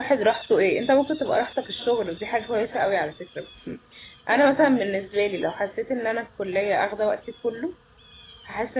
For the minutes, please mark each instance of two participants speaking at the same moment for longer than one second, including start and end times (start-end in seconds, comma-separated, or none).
none